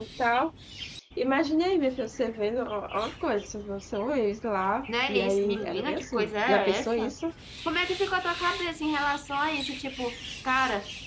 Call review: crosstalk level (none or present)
present